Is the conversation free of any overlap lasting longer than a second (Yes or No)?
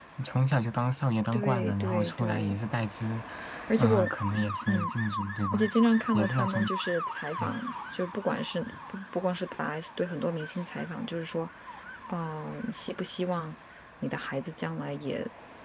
No